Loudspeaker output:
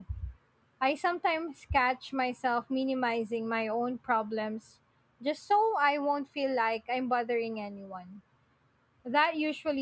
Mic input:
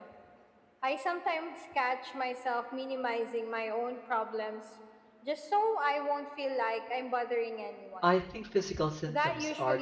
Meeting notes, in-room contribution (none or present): present